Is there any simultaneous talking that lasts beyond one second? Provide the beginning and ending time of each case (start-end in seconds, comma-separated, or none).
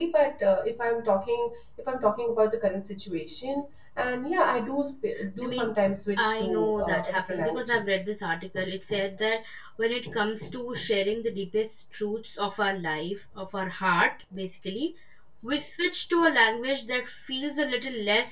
5.4-7.8